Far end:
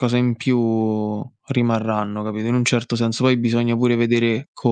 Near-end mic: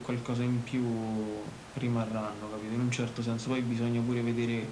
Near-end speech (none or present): none